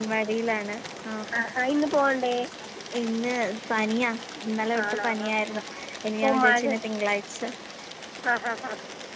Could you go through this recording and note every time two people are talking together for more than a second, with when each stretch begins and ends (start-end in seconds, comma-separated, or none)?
none